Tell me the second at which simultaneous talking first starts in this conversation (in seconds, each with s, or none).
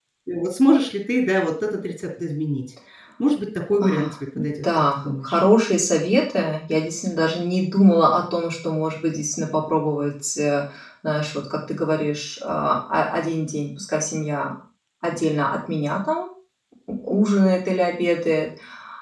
3.8 s